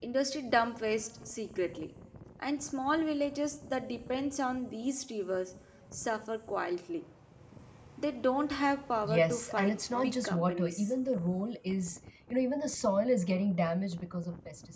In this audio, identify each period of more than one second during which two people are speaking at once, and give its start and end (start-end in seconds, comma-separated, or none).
9.0-10.9